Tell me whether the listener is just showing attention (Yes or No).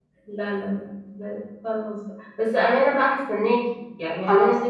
Yes